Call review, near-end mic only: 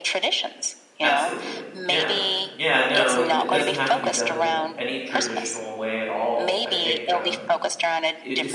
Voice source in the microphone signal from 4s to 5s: both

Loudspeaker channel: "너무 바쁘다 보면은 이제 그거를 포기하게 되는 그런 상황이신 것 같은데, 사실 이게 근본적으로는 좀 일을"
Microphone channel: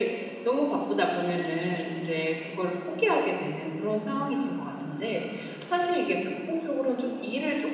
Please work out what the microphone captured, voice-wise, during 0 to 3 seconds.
echo only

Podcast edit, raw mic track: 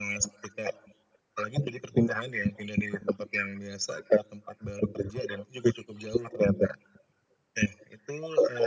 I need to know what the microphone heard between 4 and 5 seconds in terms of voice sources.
echo only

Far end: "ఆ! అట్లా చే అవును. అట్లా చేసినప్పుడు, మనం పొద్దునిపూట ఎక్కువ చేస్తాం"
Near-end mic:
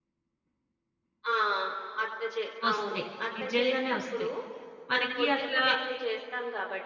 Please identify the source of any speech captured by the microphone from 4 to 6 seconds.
both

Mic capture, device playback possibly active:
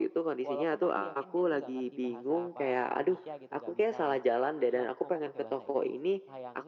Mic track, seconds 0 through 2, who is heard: both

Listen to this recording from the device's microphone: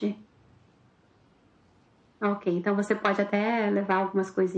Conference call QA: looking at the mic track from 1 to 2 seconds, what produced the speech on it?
neither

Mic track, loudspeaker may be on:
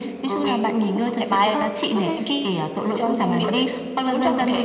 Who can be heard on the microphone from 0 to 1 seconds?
echo only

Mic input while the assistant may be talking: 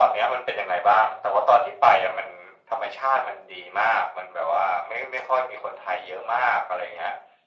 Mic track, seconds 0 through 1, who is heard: echo only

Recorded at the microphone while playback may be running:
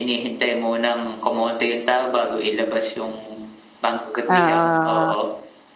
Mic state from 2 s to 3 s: echo only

